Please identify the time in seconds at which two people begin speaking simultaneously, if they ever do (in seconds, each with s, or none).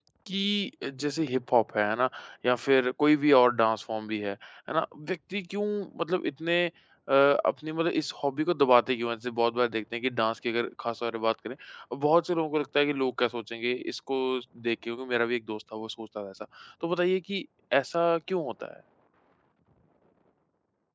none